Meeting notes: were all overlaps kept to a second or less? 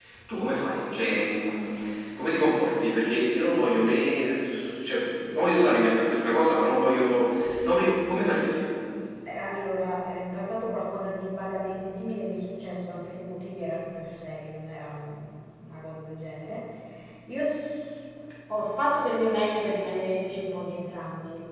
Yes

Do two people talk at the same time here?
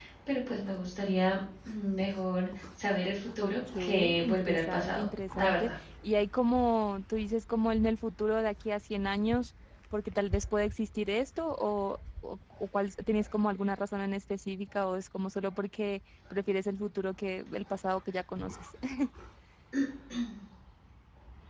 Yes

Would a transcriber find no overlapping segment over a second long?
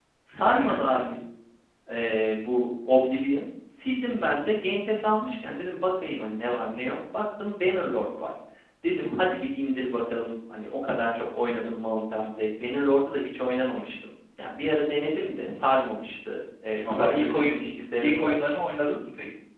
No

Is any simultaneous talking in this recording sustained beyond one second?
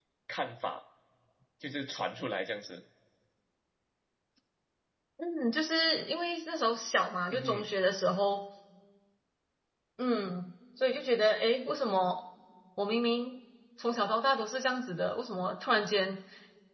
No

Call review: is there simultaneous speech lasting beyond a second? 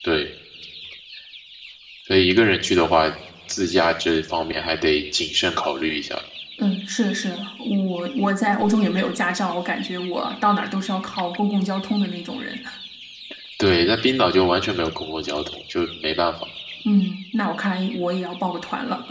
No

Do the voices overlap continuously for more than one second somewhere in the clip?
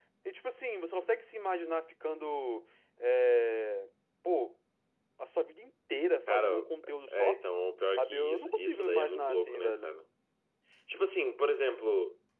Yes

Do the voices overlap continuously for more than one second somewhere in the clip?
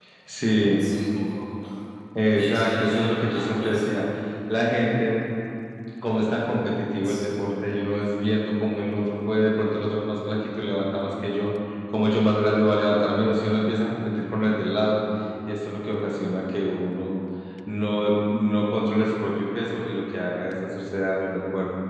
Yes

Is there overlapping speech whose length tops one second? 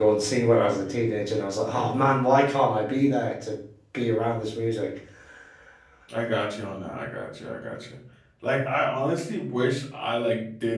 No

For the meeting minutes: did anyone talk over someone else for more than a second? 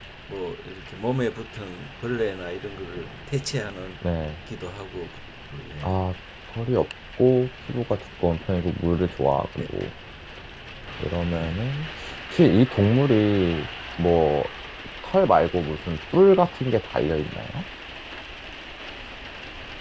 No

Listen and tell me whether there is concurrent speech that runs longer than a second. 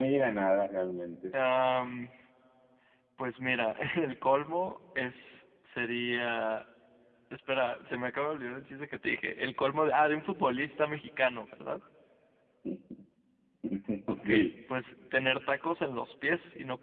No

